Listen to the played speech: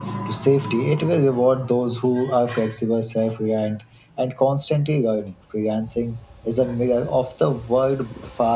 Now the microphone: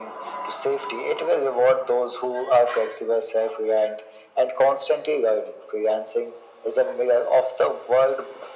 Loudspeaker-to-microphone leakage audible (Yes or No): Yes